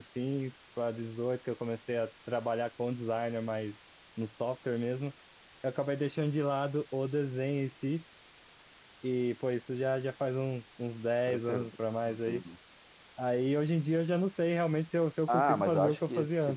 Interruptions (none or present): present